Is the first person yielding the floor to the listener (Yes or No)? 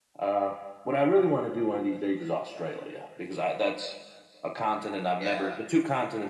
No